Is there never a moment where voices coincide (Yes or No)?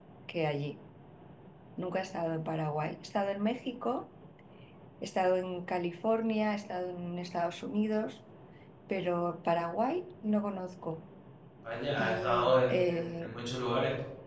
No